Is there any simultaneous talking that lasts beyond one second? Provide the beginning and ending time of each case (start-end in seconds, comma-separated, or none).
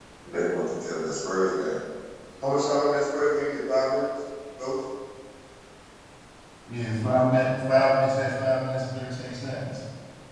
none